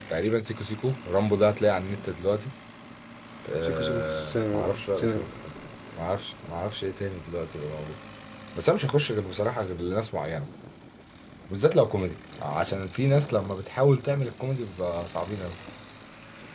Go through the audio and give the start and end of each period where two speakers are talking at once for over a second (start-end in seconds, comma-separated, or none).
3.6-5.2